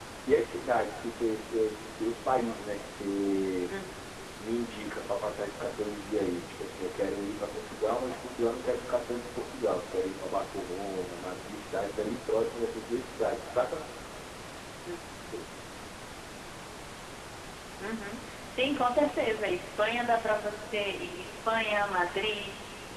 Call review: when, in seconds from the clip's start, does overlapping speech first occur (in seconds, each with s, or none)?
none